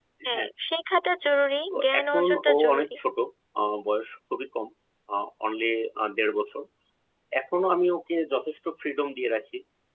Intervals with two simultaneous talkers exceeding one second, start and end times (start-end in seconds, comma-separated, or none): 1.7-3.0